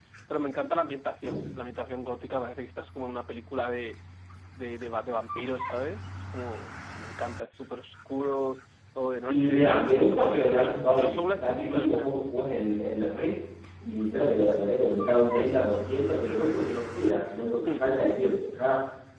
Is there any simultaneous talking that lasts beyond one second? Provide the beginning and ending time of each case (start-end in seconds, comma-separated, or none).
9.3-12.2